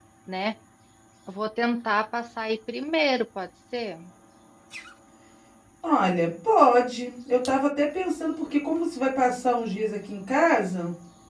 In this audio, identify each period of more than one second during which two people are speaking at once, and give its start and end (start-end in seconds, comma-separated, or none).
none